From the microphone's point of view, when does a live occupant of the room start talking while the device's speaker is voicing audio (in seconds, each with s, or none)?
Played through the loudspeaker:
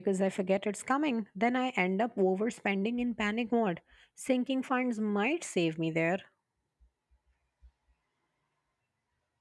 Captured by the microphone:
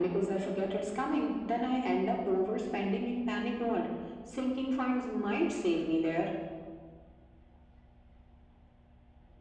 none